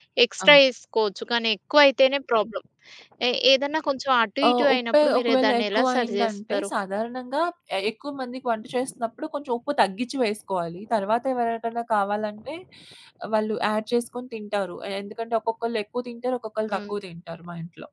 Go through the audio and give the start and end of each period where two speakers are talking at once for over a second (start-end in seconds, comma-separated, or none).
4.5-6.7